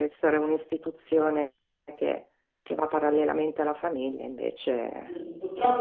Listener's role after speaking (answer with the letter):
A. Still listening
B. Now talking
B